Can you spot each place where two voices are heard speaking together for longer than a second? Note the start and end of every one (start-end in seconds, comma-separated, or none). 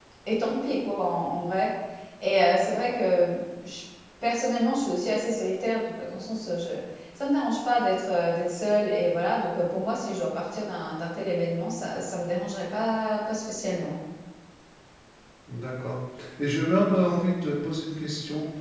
none